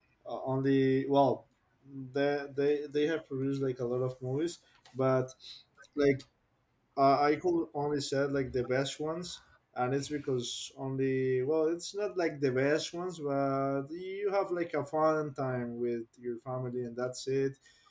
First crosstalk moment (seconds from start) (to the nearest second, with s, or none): none